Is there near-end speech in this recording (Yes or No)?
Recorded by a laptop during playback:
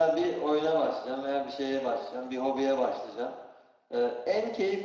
No